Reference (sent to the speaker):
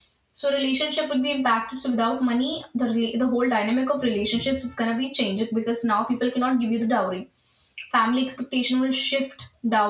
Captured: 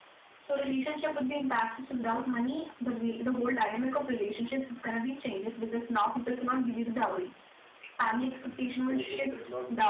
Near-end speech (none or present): present